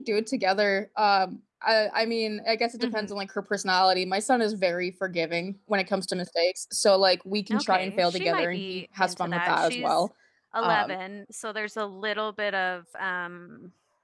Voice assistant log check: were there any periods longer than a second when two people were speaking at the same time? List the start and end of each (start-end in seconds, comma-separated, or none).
7.5-10.0